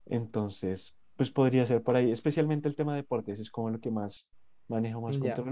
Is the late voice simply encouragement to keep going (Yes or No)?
No